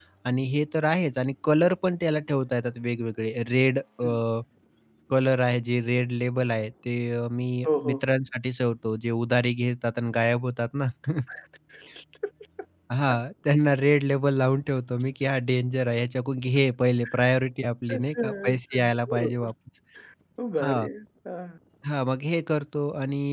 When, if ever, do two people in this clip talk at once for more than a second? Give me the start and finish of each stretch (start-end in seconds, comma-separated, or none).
18.0-19.5